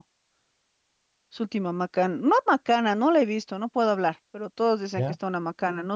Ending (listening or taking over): listening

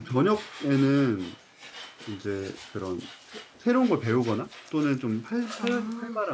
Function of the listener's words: listening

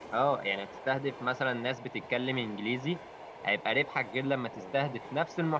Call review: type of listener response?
listening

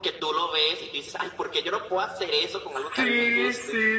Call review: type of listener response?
taking over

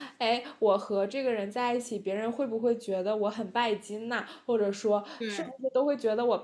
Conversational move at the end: listening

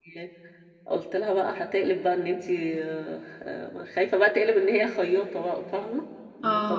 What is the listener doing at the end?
listening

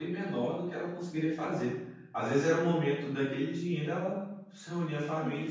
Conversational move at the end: listening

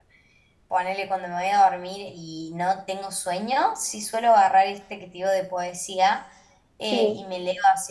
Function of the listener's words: listening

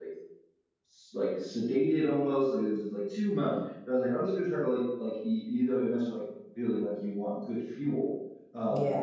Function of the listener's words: listening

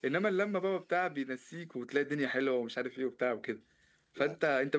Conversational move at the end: listening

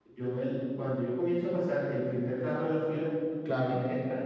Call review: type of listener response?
listening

